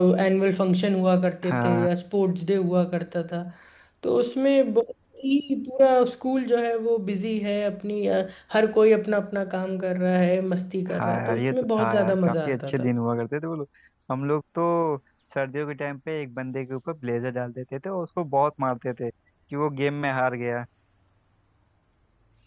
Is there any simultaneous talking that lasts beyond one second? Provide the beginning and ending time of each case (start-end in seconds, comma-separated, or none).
10.9-12.9